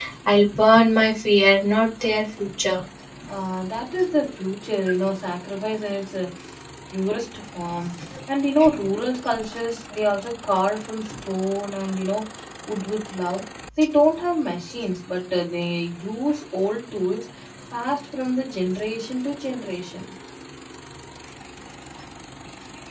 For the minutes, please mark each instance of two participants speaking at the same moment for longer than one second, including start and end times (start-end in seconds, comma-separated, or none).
none